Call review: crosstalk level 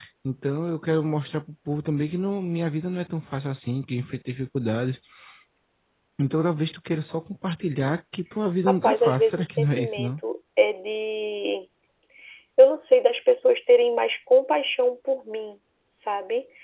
present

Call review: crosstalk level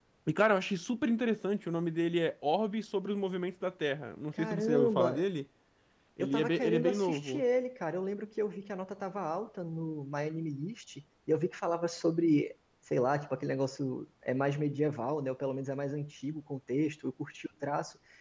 present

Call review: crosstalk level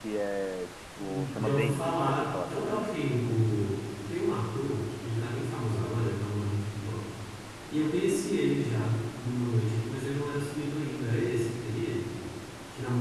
present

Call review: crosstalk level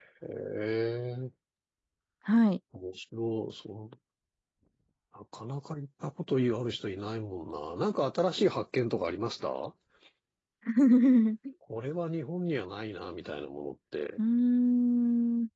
none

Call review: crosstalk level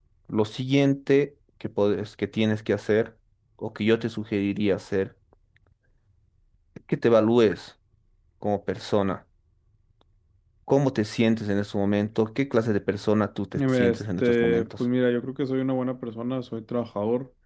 present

